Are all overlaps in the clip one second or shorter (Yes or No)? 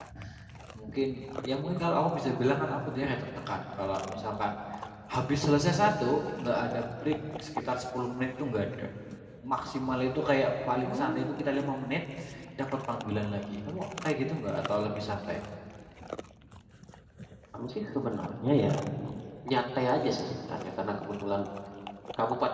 Yes